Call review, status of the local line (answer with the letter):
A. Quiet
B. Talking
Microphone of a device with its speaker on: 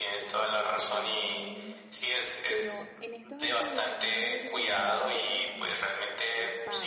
B